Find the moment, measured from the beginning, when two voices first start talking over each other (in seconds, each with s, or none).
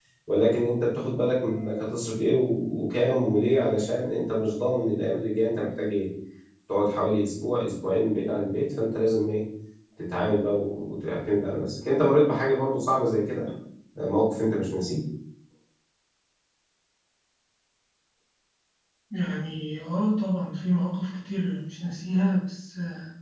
none